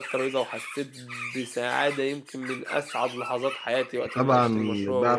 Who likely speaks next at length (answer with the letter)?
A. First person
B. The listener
B